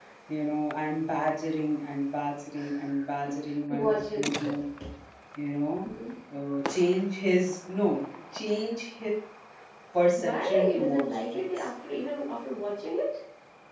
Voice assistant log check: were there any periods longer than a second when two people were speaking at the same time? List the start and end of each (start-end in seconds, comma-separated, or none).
10.2-11.7